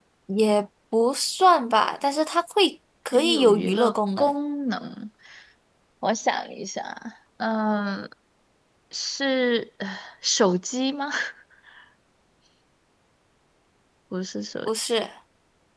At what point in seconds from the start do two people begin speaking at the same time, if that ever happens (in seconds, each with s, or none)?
3.1 s